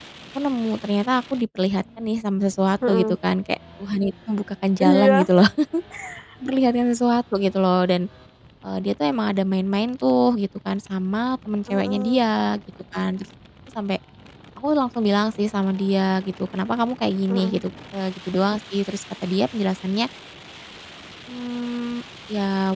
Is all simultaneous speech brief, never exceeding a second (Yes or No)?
Yes